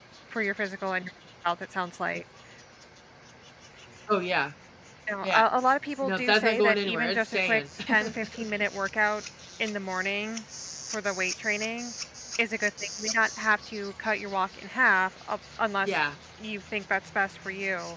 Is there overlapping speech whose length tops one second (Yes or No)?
Yes